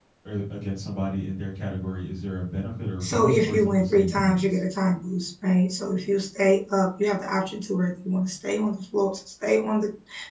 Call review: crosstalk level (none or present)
present